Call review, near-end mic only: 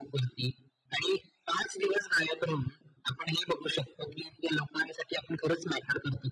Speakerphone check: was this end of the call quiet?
Yes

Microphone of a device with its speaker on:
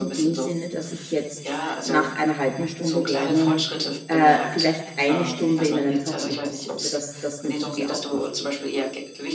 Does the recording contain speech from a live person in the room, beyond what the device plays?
Yes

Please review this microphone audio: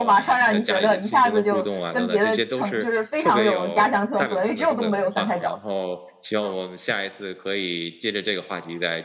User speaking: Yes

